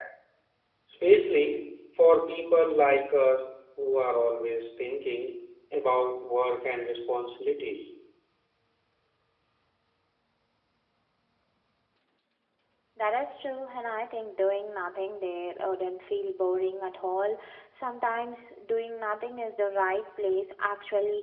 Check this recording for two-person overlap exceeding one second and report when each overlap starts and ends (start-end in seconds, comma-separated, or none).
none